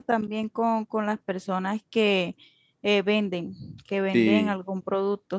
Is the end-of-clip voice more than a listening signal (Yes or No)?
No